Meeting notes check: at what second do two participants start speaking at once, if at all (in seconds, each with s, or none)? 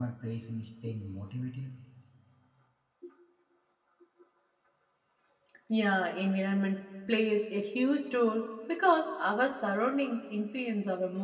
none